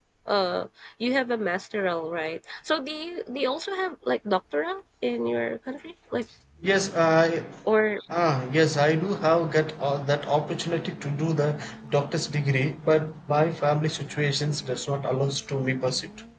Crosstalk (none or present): none